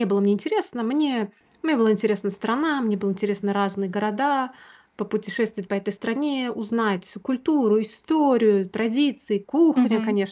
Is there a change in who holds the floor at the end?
Yes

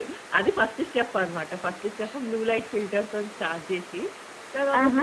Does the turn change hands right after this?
No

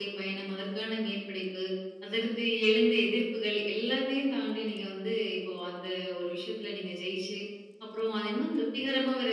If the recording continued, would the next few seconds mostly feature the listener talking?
No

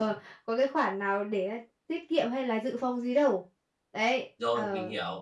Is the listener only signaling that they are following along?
No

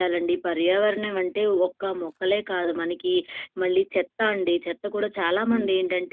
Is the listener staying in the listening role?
Yes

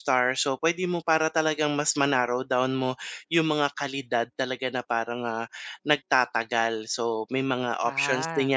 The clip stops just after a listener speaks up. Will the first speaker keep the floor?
Yes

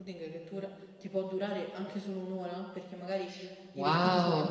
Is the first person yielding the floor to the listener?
Yes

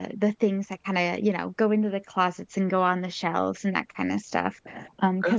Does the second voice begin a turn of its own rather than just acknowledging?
No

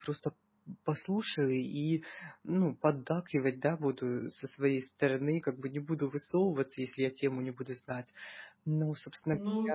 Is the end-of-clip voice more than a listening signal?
Yes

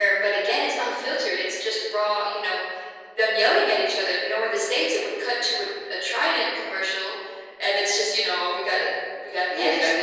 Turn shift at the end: Yes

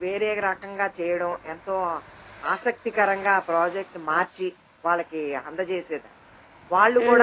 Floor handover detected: Yes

